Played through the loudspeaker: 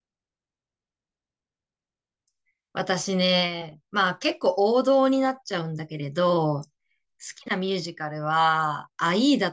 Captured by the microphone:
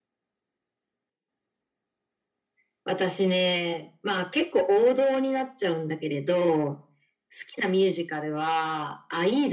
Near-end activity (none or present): none